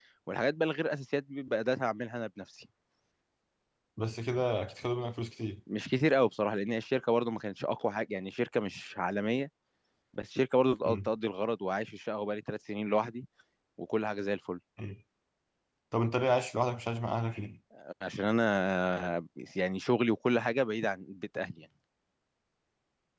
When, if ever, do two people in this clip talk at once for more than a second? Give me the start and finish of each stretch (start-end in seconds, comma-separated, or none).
none